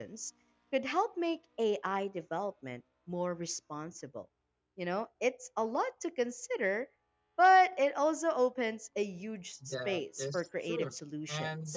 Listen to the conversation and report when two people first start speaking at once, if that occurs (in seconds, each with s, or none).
9.6 s